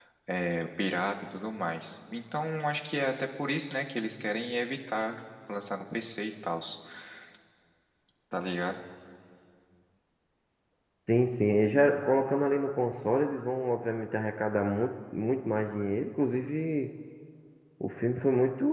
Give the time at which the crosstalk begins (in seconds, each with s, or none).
none